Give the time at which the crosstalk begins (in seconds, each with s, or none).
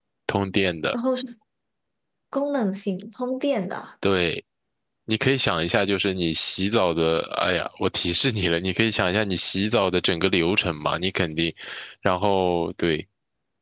none